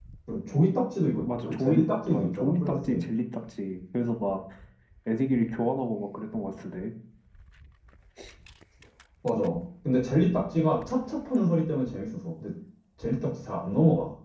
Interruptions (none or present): present